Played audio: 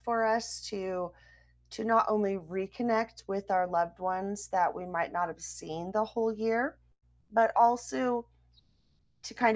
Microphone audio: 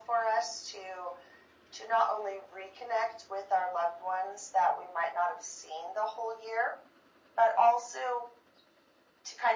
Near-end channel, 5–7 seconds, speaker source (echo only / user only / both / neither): echo only